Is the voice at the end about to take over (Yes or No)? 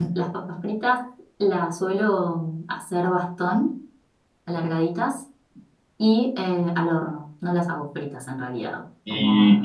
Yes